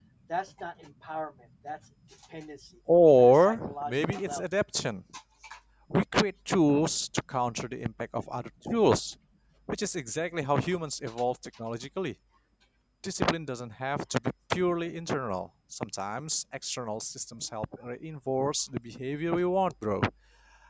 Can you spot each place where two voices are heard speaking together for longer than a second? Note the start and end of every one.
3.2-4.4

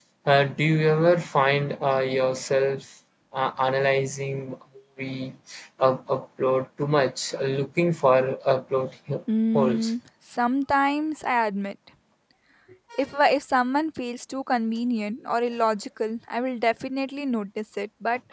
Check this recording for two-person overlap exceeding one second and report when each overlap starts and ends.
none

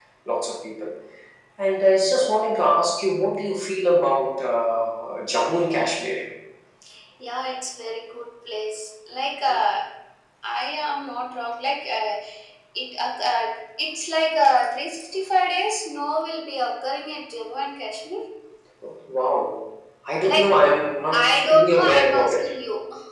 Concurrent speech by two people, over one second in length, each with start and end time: 21.1-22.5

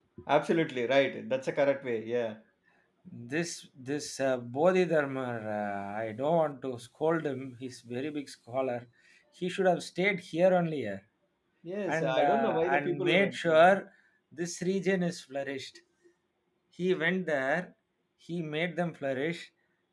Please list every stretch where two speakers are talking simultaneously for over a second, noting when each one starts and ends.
11.9-13.8

